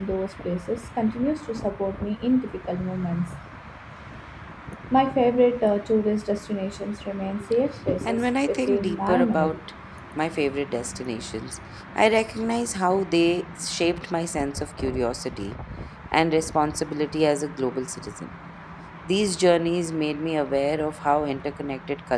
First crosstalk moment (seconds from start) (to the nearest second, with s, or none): 8 s